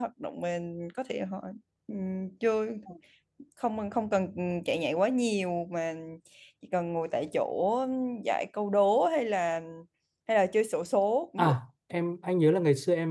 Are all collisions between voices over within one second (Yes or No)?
Yes